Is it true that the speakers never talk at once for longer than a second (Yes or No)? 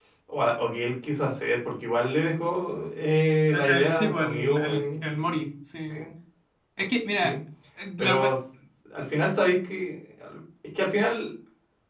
No